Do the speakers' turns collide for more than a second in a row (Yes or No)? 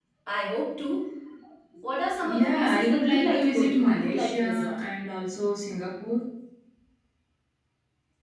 Yes